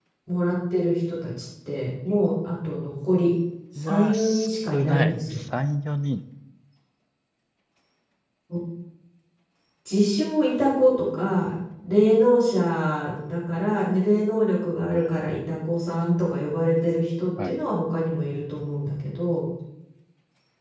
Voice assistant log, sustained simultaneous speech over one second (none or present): present